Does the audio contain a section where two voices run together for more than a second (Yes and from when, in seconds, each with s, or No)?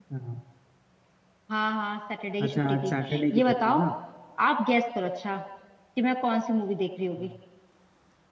Yes, from 2.5 s